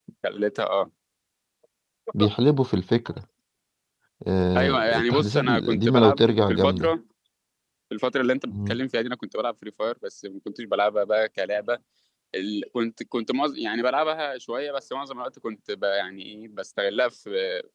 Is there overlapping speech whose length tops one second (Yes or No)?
Yes